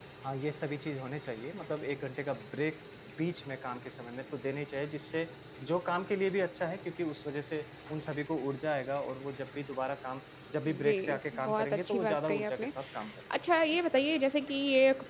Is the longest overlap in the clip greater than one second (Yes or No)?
Yes